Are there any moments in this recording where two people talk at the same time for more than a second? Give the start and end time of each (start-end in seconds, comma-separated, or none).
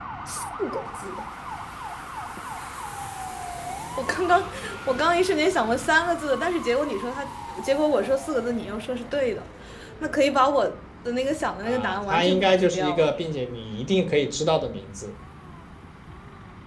11.6-13.1